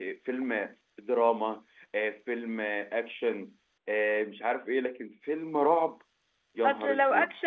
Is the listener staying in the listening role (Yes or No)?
No